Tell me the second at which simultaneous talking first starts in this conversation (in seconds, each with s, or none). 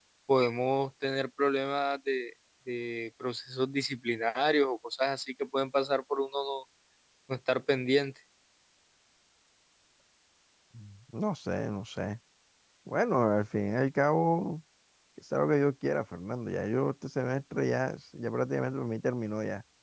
none